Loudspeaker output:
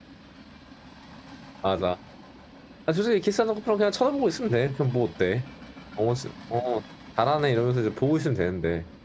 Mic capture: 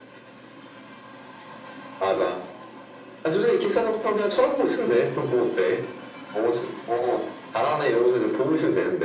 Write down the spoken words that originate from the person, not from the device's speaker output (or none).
none